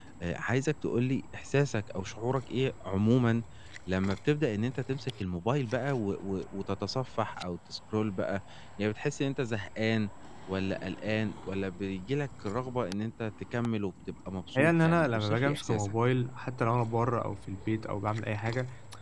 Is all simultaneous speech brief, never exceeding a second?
No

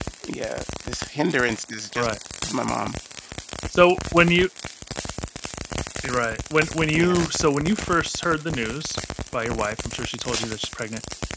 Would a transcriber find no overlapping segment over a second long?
Yes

